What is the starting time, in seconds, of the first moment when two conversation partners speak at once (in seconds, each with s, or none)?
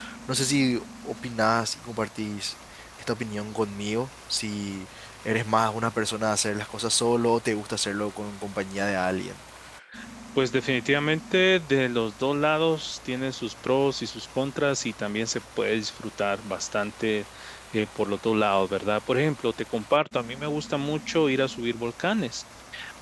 none